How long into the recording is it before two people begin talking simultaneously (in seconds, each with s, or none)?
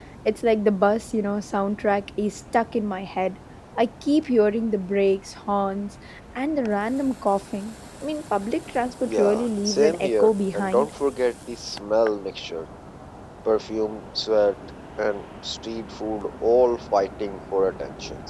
9.0 s